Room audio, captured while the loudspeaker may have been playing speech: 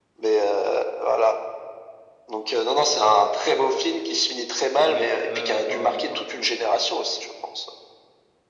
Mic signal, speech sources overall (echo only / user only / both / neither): both